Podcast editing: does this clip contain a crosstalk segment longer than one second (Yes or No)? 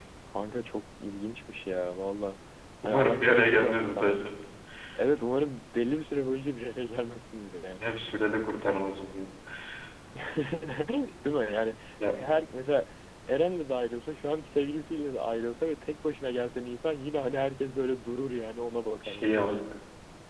Yes